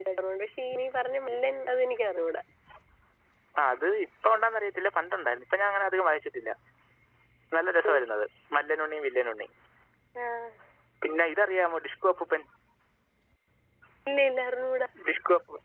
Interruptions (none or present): none